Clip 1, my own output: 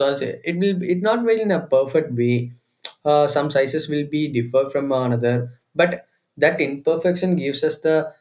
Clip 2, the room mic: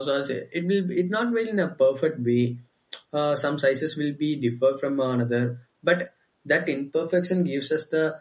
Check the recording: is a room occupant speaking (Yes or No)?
No